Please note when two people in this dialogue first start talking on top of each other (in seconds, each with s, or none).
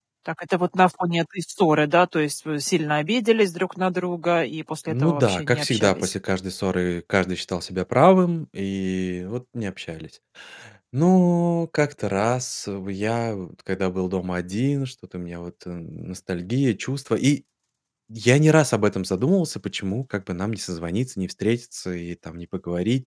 4.9 s